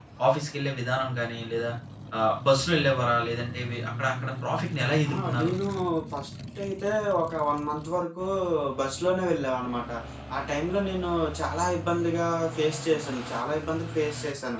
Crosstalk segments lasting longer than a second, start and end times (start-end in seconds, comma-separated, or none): none